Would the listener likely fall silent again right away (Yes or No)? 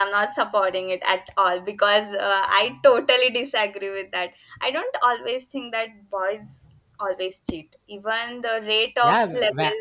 No